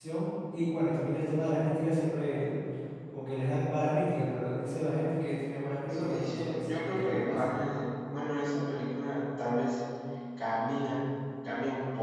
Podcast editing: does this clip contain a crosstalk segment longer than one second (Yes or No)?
Yes